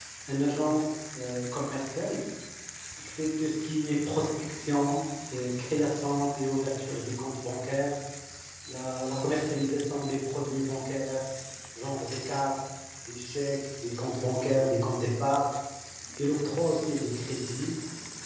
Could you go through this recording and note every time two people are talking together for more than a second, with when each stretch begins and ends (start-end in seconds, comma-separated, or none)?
none